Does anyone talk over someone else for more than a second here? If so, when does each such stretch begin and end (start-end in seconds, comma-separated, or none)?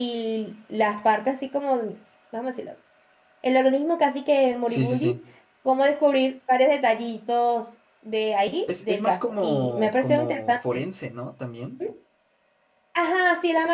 8.7-10.8